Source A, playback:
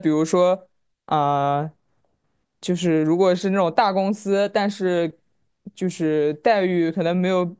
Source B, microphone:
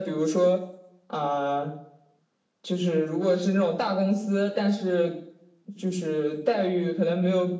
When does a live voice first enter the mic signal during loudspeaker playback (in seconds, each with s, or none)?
none